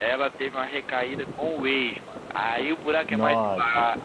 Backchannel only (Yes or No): Yes